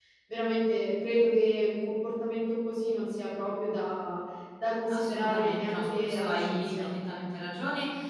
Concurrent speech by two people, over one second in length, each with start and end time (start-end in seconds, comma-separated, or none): 4.9-6.8